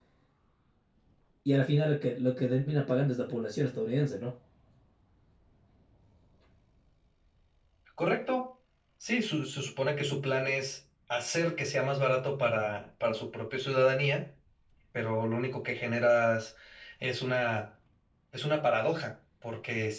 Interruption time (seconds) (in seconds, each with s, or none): none